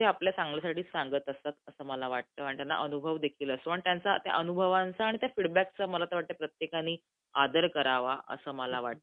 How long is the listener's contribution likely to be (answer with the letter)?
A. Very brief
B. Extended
B